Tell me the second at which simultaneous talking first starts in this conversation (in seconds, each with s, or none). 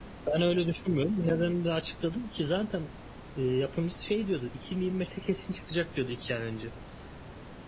none